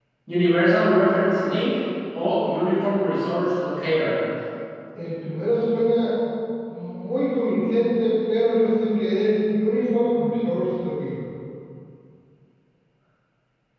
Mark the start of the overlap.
none

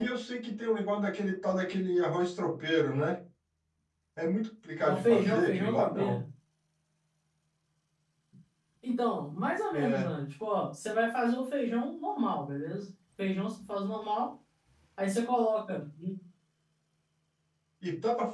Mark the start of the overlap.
4.8 s

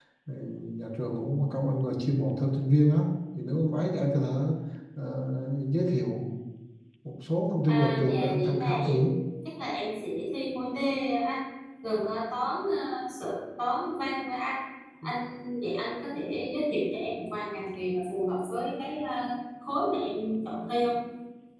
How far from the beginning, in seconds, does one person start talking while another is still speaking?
7.7 s

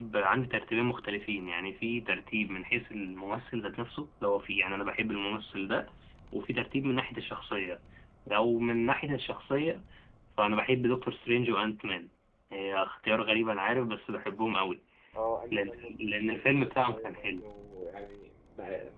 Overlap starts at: 15.5 s

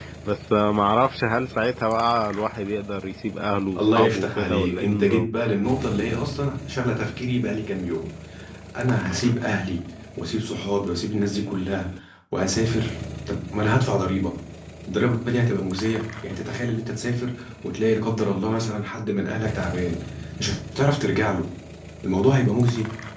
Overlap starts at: 3.8 s

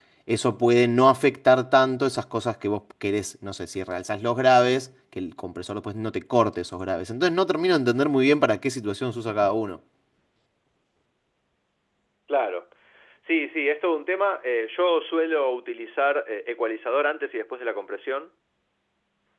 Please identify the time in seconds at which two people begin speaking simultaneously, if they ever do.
none

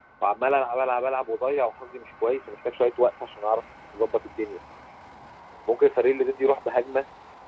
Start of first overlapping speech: none

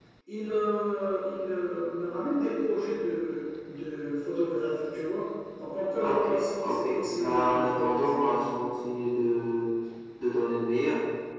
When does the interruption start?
6.0 s

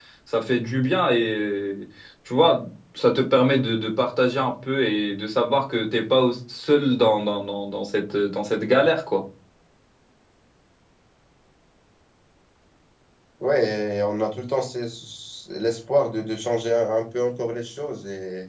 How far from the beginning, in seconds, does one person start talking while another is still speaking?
none

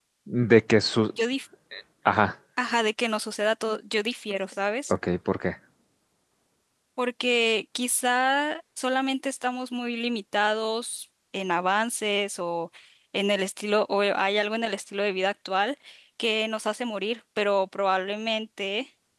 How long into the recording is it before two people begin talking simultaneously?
none

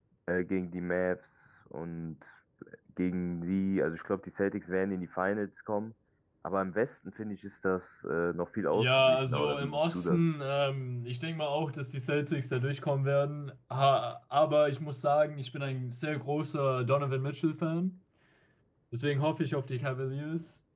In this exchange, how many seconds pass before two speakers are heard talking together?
8.7 s

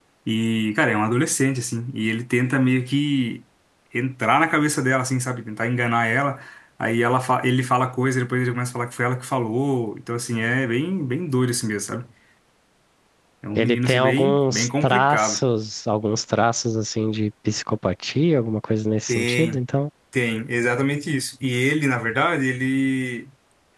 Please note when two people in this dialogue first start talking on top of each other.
13.6 s

